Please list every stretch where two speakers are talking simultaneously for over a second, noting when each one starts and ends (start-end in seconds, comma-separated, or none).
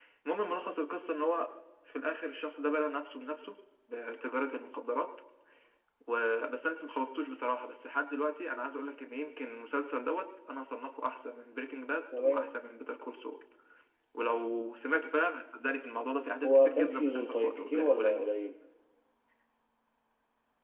16.4-18.3